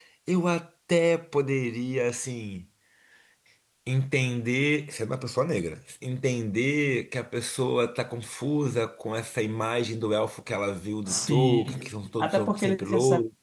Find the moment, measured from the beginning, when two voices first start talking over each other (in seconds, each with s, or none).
11.1 s